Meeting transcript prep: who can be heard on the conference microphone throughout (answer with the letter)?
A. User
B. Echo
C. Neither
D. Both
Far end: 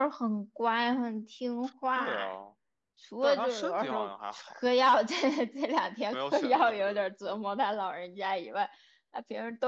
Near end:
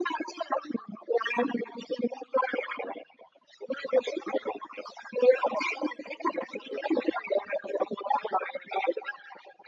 B